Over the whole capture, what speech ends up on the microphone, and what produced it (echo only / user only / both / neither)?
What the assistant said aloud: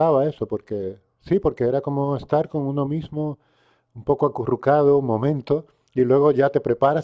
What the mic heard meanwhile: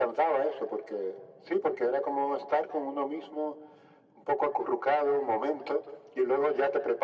echo only